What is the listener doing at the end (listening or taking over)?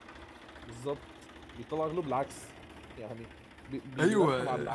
taking over